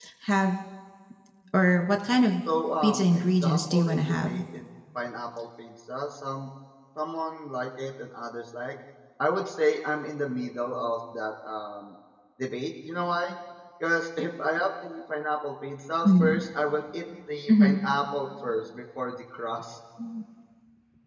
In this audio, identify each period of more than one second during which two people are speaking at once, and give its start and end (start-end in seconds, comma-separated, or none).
2.8-4.3